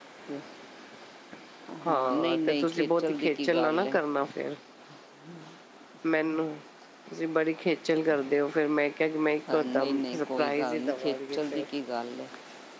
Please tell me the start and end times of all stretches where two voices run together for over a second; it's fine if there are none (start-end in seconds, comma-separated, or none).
1.8-4.0, 9.5-11.6